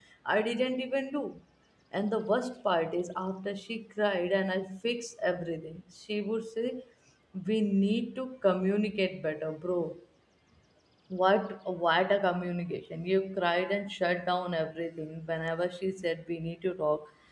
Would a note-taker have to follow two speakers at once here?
No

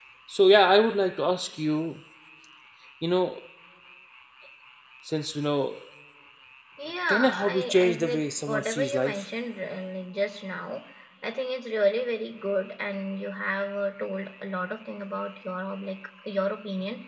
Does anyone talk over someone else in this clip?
Yes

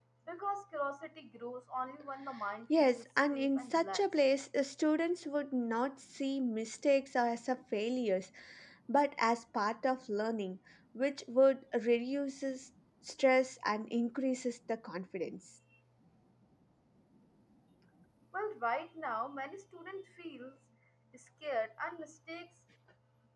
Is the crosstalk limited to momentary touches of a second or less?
No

